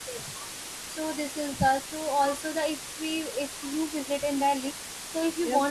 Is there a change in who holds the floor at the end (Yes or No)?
Yes